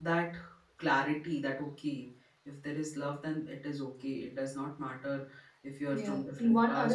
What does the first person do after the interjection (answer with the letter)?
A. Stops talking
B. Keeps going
A